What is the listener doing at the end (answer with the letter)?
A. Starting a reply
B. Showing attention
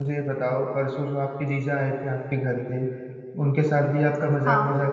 B